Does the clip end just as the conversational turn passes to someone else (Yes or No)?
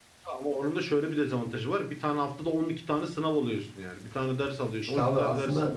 Yes